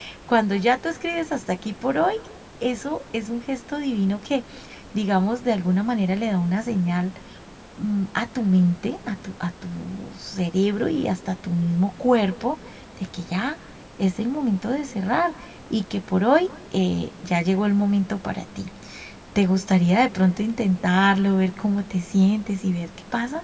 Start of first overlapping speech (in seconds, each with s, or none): none